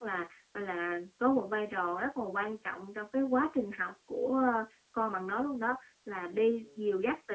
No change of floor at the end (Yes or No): Yes